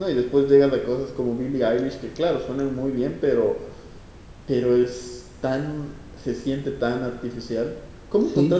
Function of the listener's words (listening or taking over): listening